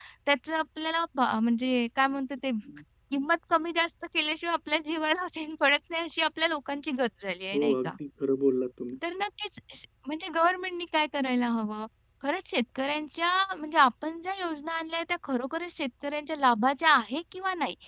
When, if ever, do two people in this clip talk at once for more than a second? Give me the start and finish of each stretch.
none

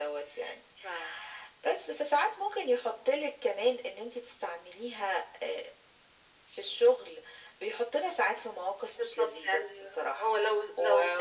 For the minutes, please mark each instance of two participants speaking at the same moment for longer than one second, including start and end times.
9.0-10.3

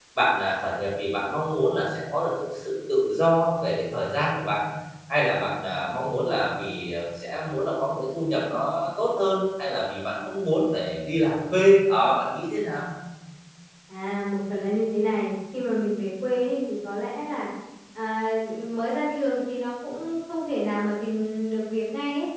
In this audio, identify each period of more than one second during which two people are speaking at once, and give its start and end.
none

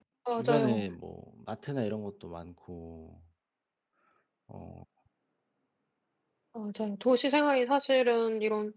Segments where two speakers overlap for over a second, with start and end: none

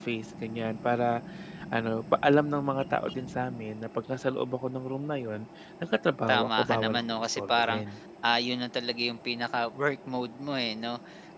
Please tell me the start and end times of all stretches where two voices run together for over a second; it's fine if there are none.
6.3-7.8

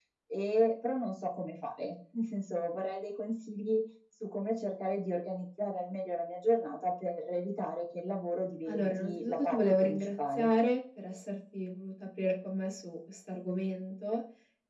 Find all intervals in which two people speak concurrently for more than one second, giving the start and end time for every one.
8.7-10.5

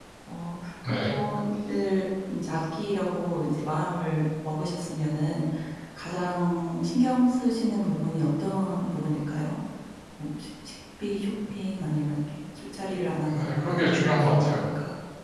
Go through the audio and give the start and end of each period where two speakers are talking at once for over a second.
13.4-14.7

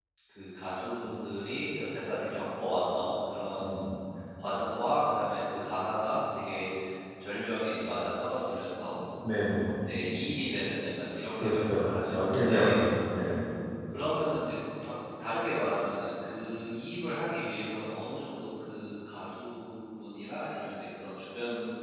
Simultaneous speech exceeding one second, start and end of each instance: 11.4-12.8

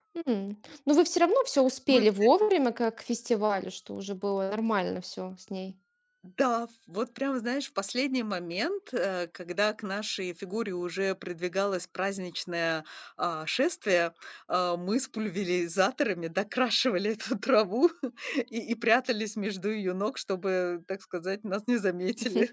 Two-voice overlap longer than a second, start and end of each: none

